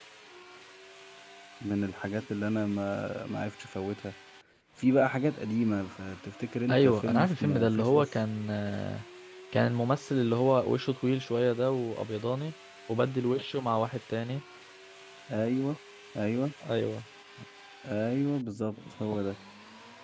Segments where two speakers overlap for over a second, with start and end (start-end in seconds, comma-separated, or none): 6.7-8.1